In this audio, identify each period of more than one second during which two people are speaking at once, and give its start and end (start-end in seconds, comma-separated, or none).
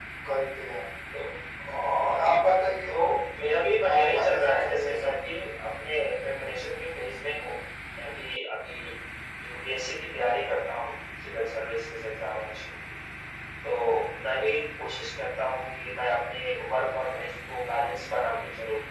3.9-5.2